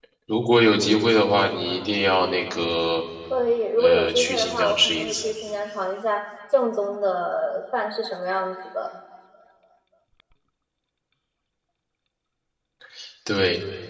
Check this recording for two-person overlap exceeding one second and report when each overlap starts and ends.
3.8-5.2

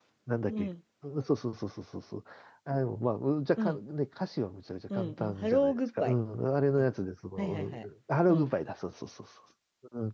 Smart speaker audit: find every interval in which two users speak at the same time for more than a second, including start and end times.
5.0-6.2

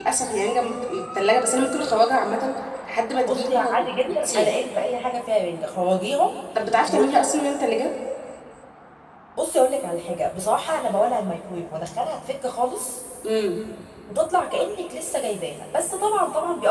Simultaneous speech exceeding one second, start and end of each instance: 3.3-4.5

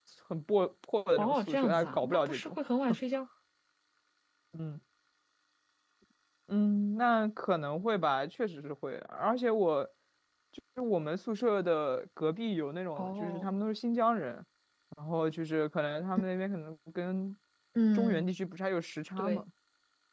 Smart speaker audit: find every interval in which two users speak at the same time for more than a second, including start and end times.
1.2-2.6

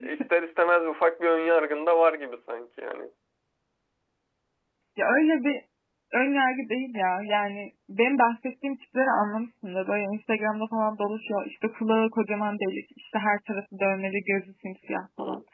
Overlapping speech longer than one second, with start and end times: none

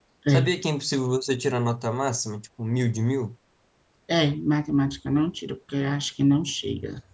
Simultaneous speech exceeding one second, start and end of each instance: none

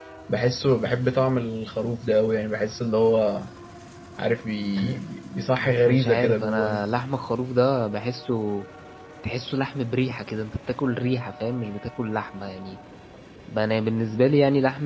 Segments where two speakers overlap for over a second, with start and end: 5.6-6.8

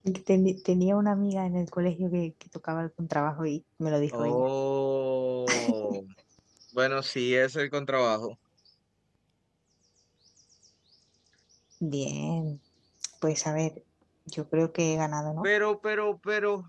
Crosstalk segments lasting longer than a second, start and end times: none

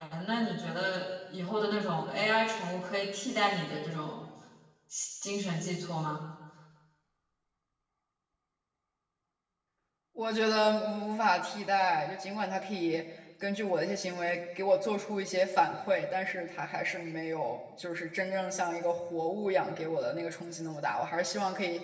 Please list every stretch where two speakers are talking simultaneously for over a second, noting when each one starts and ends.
none

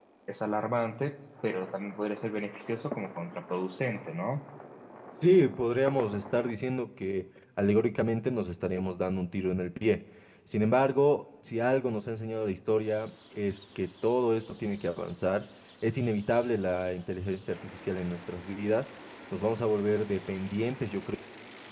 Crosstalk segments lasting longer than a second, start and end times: none

